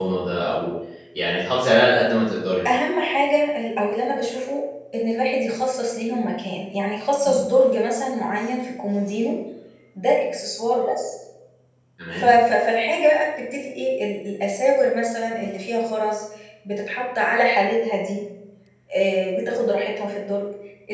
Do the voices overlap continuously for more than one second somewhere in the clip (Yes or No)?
No